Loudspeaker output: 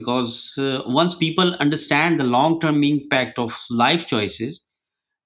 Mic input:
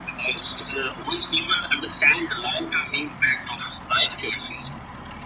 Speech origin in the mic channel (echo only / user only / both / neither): echo only